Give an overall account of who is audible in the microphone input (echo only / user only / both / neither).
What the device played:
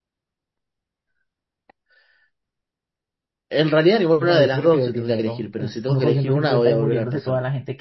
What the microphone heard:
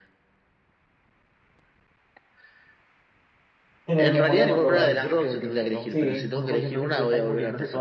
both